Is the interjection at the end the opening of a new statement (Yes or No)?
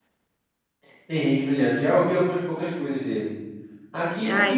No